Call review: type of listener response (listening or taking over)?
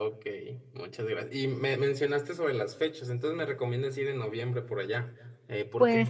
taking over